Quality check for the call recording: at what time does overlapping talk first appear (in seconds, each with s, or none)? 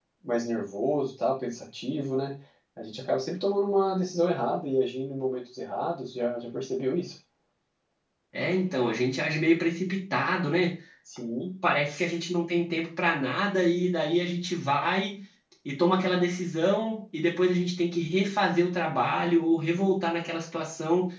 none